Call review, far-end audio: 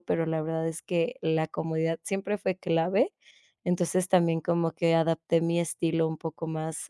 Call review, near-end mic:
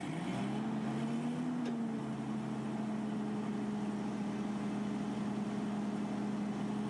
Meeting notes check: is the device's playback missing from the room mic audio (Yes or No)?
Yes